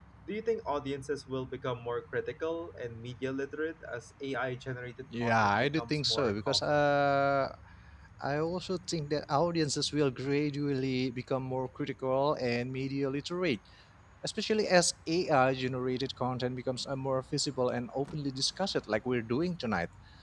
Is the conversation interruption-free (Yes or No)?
No